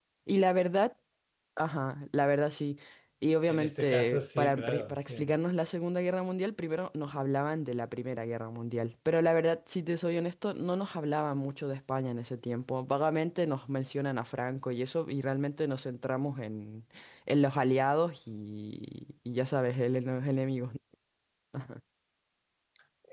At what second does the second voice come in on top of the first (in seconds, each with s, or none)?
3.5 s